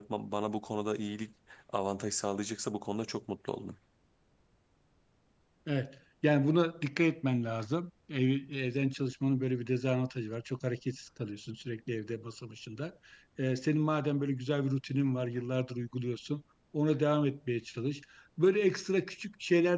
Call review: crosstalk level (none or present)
none